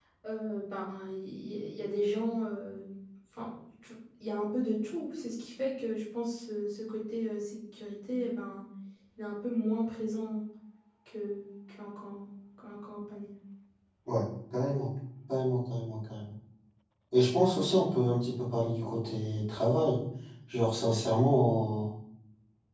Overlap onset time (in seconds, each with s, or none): none